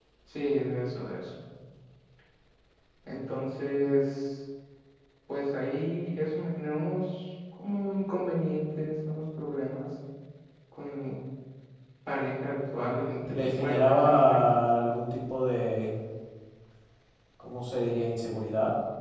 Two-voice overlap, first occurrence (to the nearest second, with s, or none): 13 s